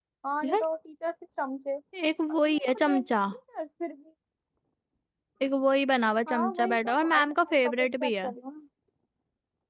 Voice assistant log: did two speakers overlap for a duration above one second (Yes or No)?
Yes